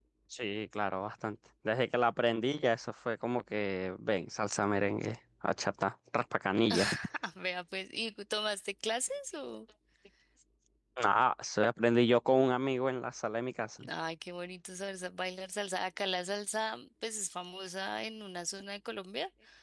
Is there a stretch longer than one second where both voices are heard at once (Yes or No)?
No